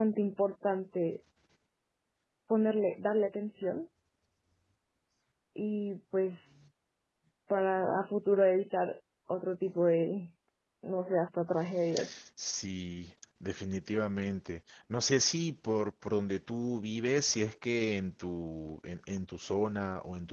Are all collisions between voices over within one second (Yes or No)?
Yes